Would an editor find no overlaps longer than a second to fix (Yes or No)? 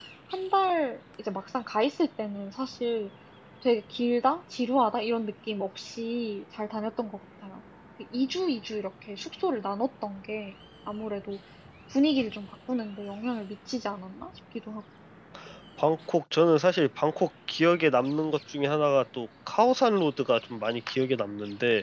Yes